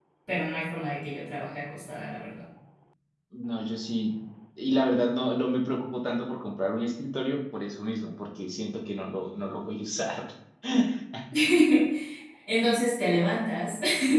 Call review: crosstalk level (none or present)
none